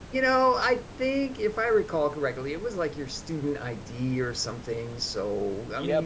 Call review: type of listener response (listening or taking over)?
taking over